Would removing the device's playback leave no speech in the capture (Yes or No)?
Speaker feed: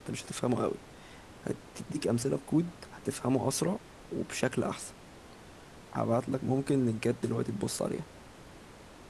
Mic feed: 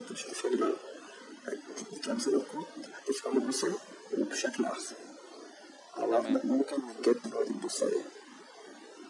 No